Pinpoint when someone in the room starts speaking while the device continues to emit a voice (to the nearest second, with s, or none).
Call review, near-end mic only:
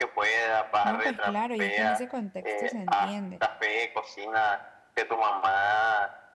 1 s